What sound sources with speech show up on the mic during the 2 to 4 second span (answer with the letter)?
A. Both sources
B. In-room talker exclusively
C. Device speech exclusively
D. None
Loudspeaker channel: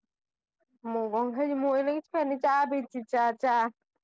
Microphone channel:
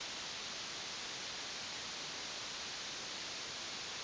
D